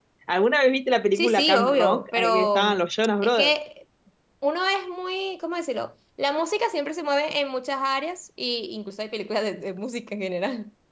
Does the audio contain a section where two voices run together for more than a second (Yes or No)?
Yes